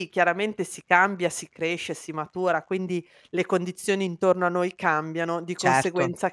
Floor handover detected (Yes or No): No